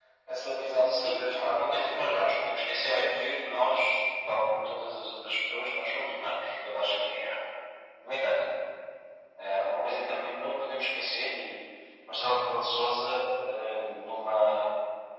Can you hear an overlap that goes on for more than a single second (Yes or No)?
Yes